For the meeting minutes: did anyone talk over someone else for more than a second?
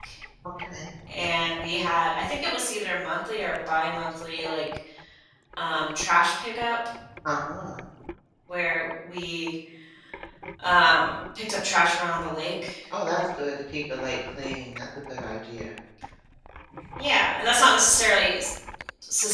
No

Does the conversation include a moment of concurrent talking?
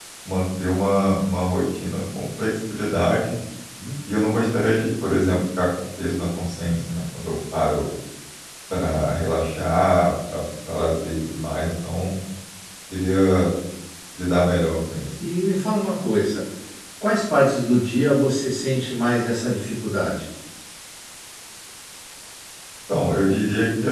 No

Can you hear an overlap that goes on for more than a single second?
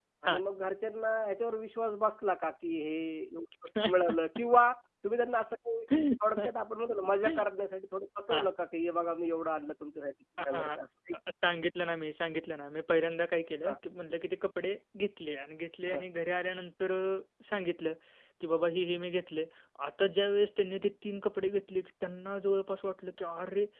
No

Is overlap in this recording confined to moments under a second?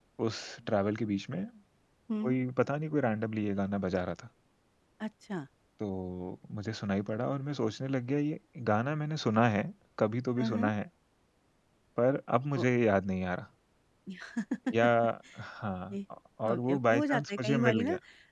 No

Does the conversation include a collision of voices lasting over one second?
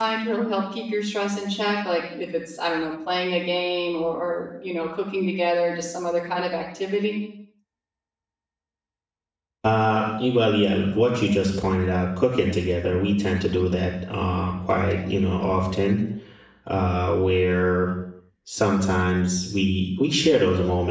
No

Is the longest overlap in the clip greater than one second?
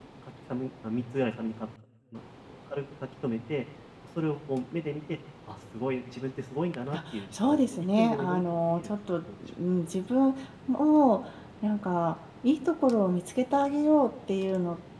Yes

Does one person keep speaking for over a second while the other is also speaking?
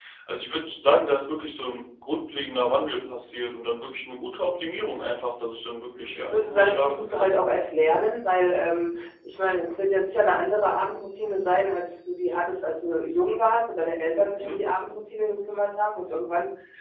Yes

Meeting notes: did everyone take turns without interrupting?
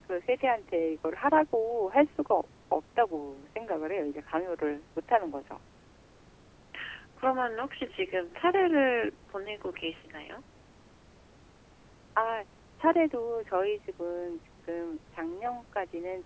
Yes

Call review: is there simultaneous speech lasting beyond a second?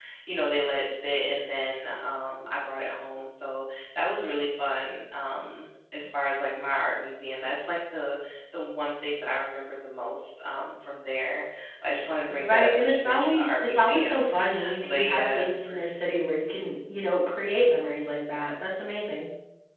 Yes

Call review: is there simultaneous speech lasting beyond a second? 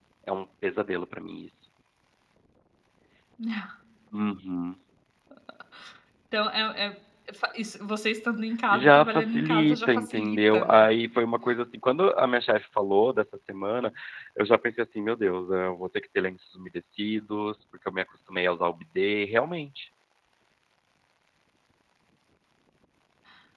Yes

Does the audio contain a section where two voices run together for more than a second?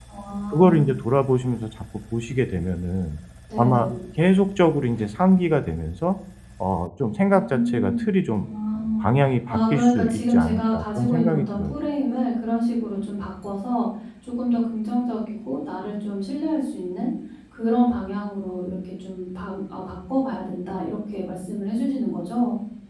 Yes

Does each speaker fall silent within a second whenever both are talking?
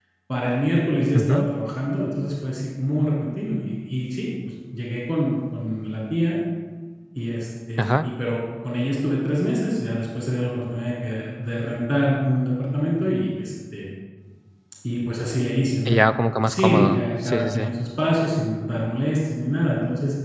No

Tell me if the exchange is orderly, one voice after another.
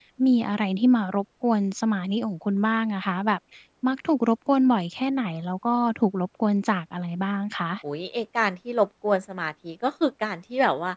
Yes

